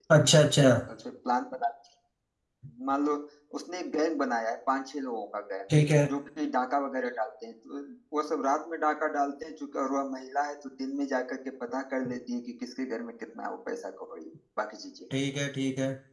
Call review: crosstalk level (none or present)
none